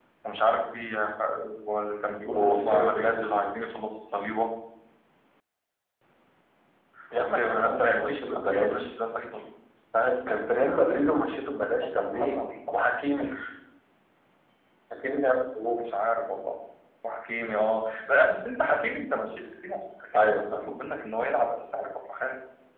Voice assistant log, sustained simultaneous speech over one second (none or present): present